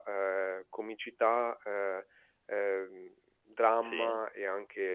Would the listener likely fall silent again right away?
Yes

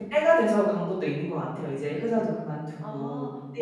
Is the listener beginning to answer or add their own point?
Yes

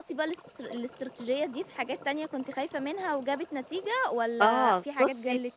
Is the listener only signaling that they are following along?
No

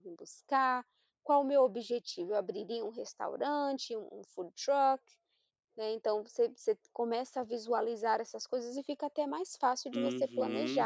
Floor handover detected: Yes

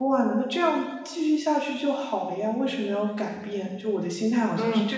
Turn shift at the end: Yes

